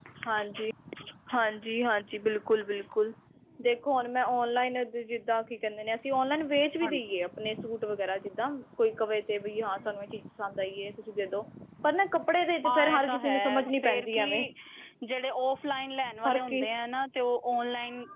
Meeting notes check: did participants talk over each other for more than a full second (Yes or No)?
Yes